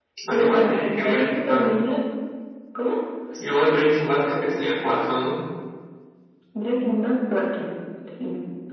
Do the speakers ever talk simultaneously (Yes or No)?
Yes